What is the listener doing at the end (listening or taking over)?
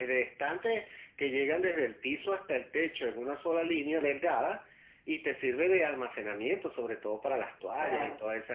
taking over